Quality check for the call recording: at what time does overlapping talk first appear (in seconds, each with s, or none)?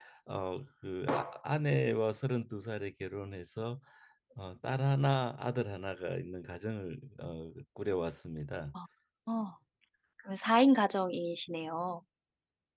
none